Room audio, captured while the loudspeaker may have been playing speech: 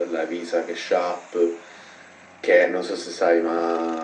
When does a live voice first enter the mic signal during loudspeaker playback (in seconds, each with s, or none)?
none